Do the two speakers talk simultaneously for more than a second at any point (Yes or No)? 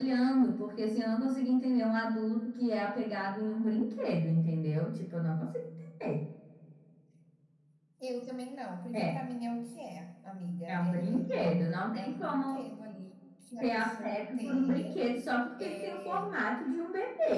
Yes